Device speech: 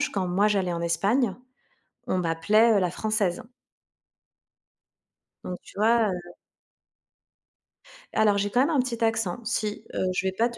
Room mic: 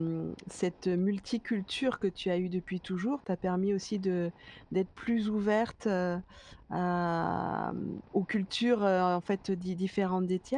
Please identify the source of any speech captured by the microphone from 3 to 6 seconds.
user only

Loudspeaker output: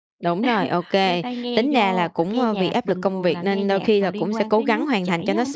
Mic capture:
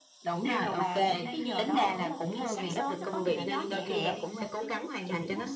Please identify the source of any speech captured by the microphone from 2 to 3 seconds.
both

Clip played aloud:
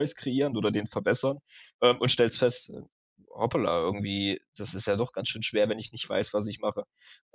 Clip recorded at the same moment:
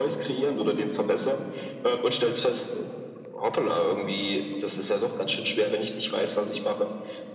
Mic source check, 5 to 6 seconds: echo only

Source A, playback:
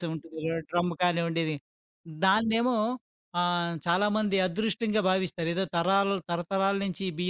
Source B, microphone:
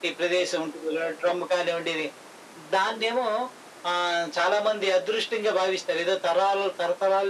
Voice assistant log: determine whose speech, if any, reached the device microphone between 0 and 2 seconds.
echo only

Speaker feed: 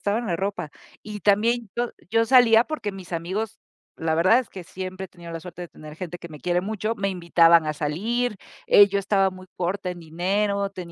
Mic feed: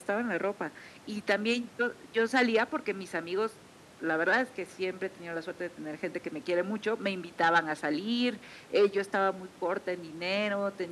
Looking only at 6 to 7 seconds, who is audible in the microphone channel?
echo only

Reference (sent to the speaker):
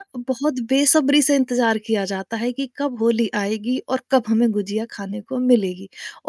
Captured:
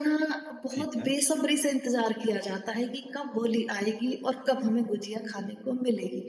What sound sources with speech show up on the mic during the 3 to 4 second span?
echo only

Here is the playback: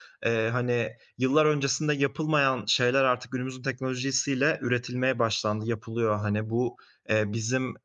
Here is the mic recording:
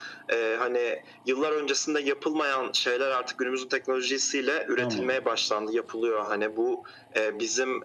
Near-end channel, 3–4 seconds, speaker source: echo only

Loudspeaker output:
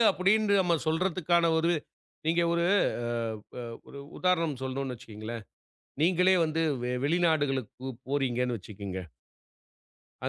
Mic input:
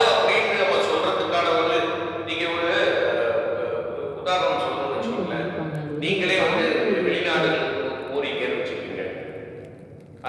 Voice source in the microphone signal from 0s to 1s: echo only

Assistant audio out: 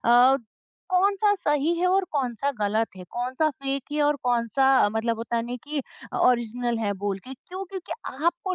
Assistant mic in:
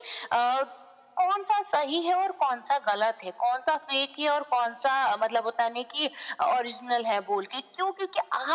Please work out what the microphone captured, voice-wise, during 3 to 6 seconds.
echo only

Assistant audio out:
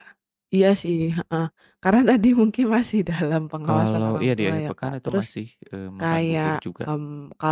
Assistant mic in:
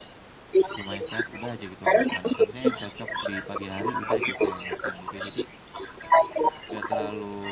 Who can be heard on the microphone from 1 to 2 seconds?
both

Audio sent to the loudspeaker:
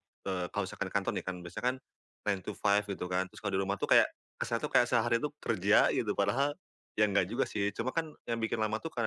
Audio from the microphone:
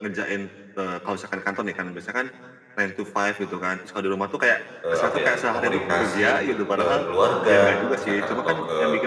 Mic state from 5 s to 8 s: both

